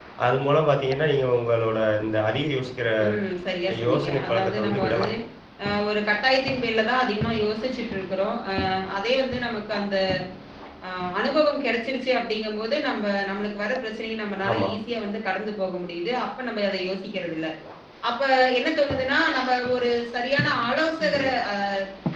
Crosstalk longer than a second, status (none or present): present